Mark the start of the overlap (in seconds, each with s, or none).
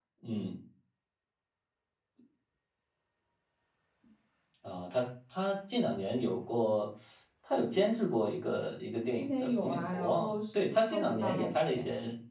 9.1 s